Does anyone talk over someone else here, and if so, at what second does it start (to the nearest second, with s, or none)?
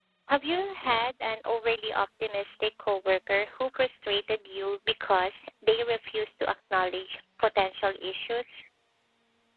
none